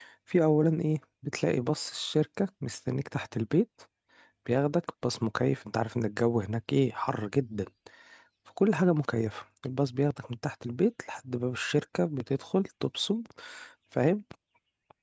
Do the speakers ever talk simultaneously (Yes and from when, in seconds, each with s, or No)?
No